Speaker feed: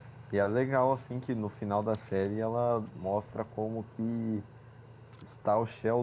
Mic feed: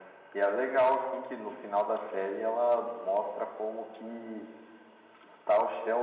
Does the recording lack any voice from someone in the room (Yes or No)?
Yes